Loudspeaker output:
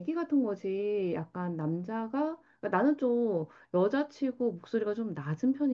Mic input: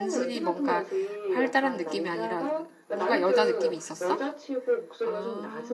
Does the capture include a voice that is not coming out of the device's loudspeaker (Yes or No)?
Yes